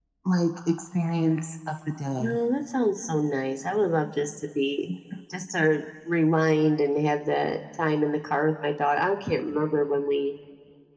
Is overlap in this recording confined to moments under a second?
Yes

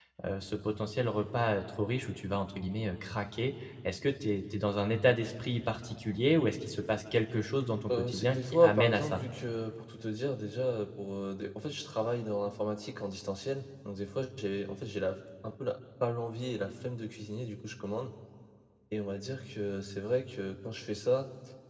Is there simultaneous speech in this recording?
Yes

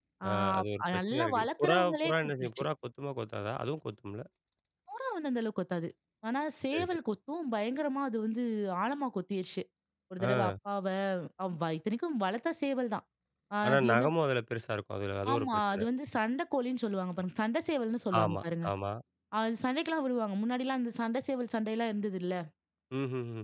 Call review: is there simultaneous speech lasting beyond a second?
Yes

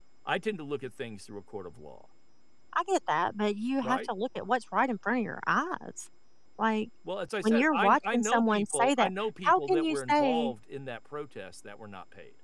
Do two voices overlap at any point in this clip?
Yes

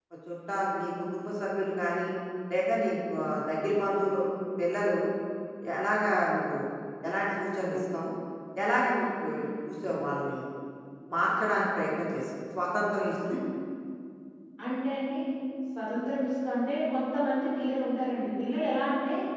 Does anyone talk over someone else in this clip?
No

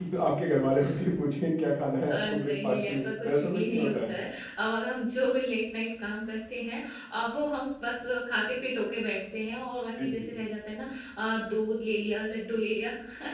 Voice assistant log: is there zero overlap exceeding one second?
No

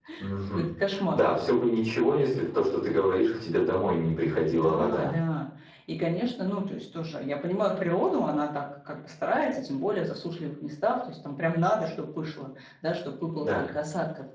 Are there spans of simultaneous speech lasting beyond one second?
No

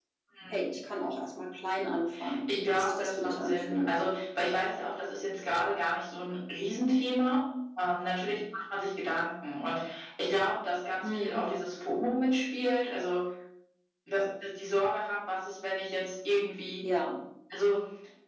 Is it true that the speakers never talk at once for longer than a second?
No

